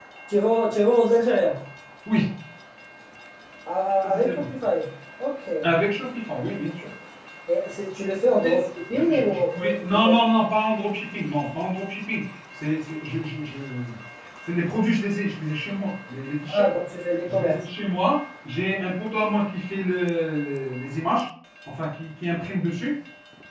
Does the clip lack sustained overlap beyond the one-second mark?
No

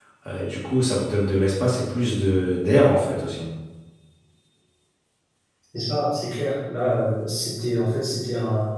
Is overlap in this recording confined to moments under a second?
Yes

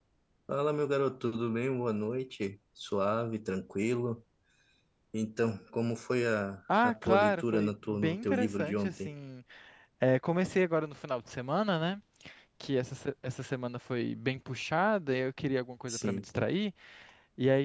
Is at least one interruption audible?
Yes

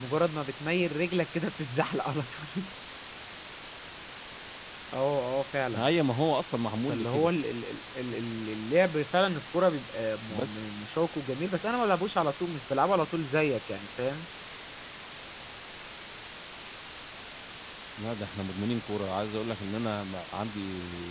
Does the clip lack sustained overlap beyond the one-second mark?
Yes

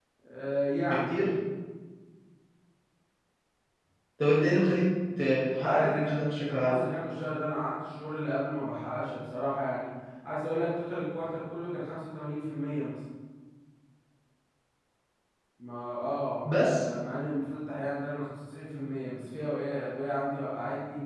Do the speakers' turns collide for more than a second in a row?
Yes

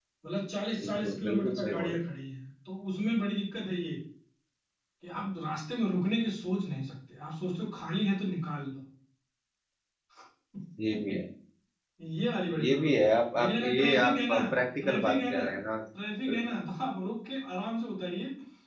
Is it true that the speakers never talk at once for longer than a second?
No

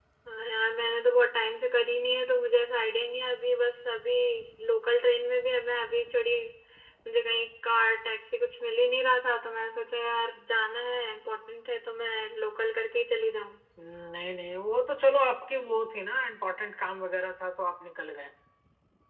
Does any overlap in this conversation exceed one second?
No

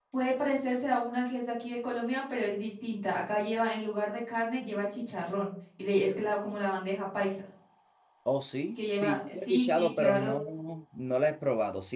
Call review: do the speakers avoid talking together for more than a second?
No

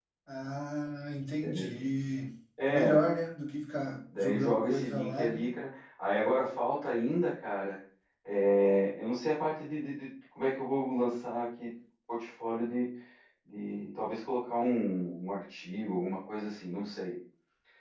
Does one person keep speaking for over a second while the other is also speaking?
Yes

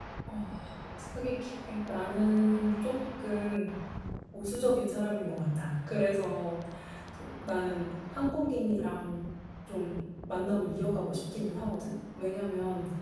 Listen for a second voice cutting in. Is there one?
No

